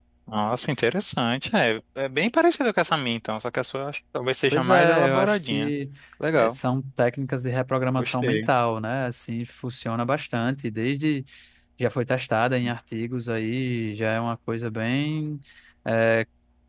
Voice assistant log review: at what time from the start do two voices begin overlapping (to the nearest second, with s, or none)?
5 s